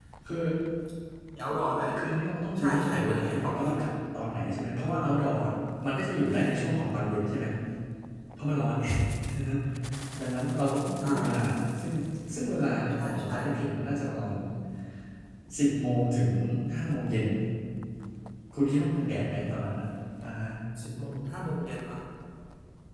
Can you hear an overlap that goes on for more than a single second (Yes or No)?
Yes